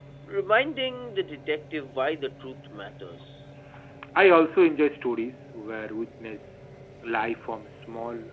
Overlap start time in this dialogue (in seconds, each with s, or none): none